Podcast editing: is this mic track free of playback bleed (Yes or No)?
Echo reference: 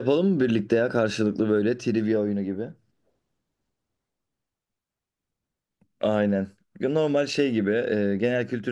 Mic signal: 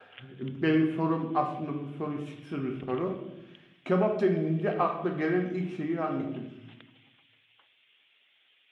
Yes